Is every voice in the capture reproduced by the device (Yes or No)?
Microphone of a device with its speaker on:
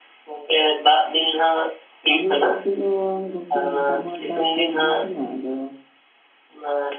No